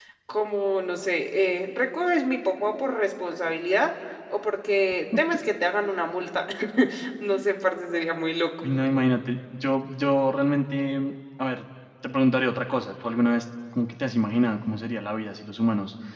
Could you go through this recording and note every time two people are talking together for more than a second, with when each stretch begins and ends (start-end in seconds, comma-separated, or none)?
none